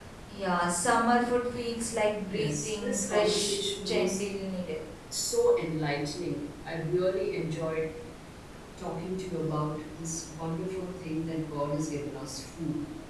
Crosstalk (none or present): present